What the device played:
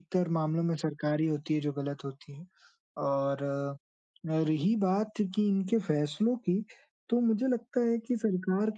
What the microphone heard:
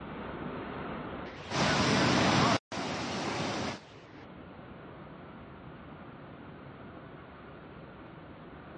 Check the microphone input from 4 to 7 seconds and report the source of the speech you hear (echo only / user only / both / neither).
neither